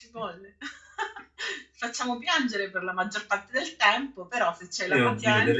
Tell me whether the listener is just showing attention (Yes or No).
No